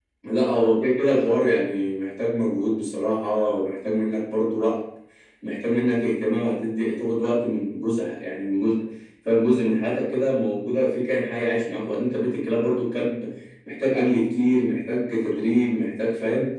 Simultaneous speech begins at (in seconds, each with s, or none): none